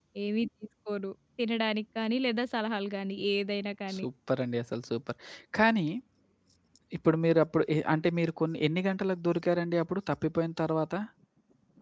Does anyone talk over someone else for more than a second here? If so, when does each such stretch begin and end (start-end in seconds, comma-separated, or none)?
none